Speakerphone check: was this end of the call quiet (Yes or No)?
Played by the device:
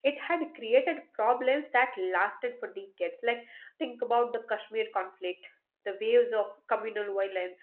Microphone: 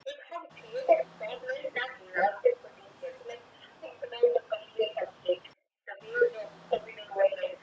Yes